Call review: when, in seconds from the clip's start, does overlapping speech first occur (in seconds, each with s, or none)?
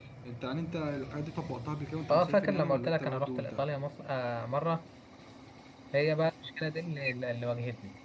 2.1 s